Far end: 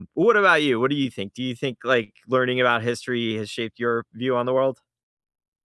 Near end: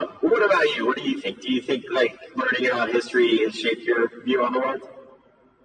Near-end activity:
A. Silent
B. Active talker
A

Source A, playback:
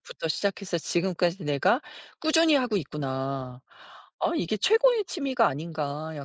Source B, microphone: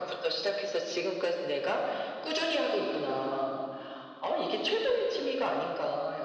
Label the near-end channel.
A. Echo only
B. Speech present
A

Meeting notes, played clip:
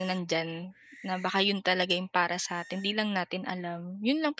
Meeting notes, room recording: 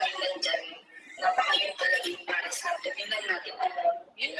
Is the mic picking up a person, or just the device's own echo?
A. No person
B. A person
A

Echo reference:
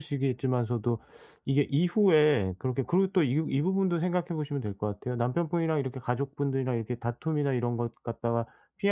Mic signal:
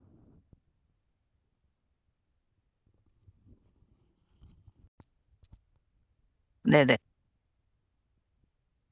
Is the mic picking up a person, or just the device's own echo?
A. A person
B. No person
A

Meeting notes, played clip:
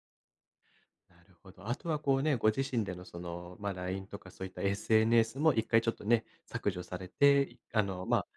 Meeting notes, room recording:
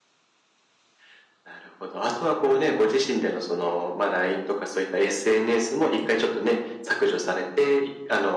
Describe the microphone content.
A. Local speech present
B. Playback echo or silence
B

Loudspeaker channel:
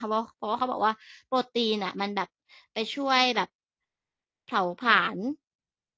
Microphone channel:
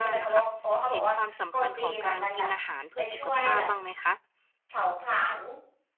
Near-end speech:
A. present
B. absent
A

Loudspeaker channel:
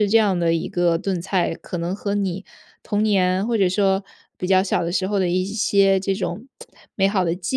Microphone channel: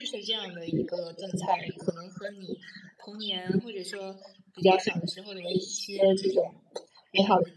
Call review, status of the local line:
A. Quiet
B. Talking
A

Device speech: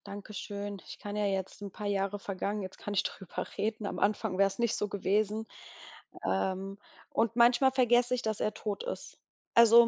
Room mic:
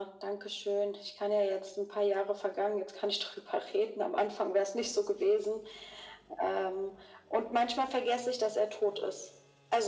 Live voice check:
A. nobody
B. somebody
A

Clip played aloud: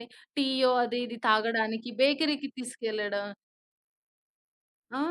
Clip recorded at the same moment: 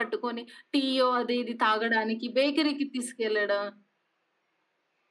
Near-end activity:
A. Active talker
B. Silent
B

